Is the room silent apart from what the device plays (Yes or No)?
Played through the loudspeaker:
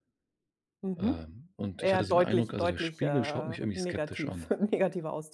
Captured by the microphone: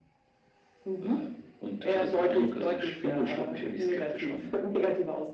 Yes